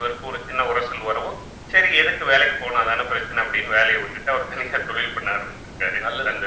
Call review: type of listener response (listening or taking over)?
taking over